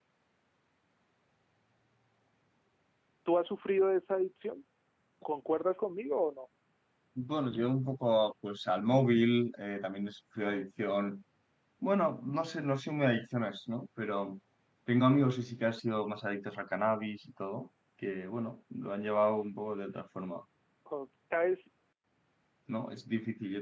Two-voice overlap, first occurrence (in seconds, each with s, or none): none